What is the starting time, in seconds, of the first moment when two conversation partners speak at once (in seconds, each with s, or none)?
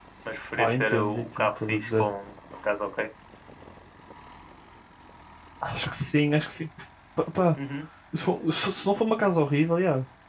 0.6 s